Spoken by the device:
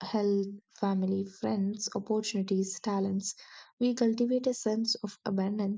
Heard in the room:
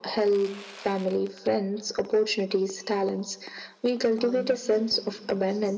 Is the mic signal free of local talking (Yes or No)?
No